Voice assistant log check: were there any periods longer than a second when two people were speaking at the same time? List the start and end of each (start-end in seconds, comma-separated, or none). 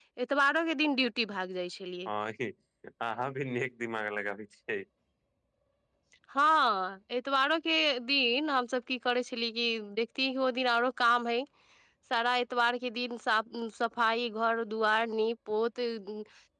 none